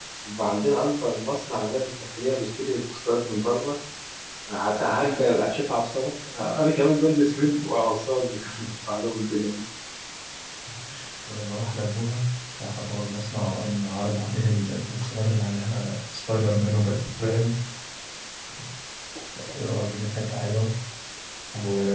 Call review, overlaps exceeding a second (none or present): none